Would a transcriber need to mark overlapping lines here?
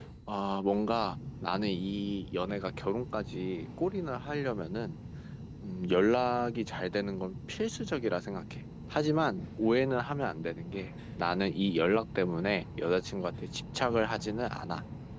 No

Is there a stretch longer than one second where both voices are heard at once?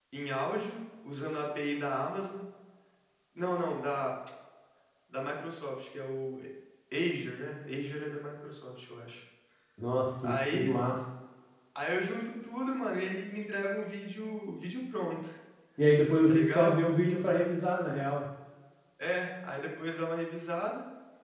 No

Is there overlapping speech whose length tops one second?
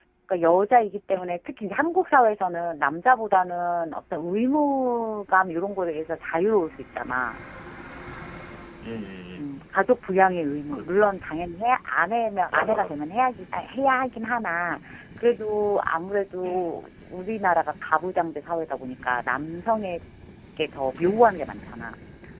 No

